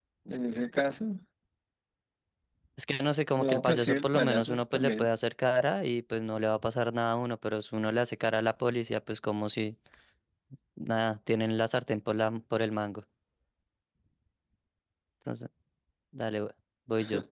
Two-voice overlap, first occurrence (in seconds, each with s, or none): 3.4 s